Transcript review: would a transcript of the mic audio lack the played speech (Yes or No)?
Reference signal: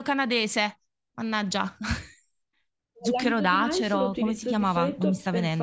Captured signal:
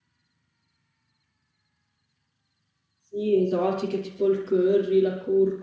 Yes